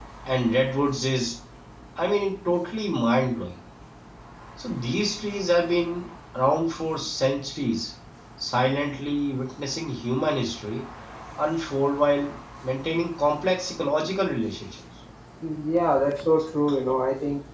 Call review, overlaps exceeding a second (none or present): none